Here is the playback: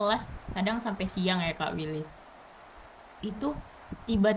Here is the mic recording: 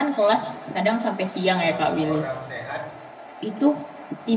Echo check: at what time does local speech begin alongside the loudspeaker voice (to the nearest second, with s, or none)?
2 s